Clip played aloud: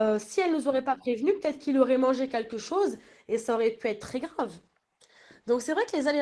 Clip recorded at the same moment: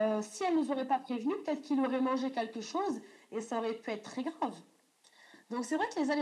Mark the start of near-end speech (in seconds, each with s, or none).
none